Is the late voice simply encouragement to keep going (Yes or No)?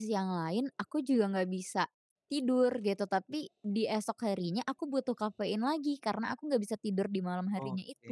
No